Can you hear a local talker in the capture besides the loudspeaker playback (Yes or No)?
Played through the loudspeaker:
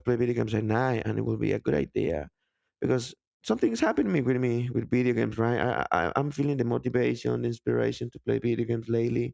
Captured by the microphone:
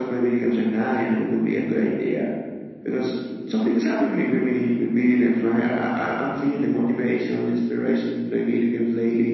No